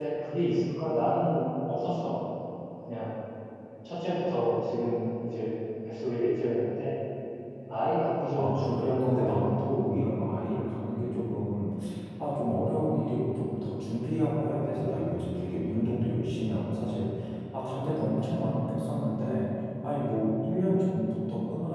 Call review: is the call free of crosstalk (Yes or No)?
No